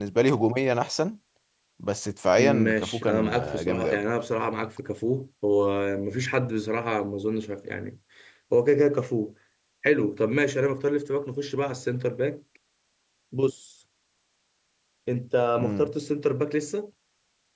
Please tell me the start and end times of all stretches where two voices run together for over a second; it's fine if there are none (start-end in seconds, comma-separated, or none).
2.4-4.0